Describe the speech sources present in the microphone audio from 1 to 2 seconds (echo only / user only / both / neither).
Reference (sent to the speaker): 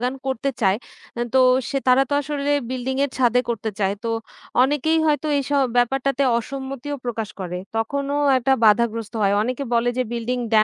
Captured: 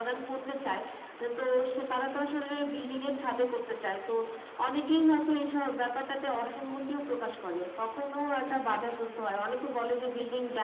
echo only